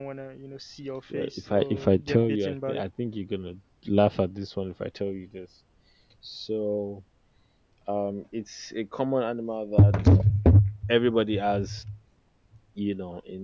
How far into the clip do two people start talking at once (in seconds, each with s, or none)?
1.1 s